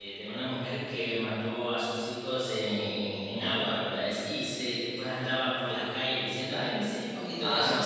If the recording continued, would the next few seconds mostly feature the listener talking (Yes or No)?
Yes